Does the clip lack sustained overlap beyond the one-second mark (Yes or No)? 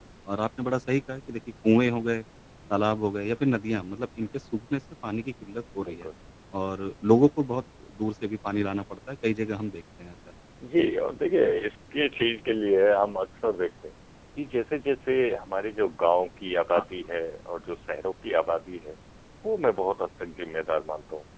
Yes